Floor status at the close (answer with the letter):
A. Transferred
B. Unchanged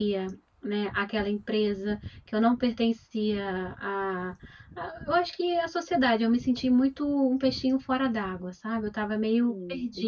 A